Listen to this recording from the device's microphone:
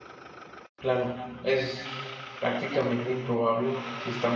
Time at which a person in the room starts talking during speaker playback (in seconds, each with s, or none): 0.8 s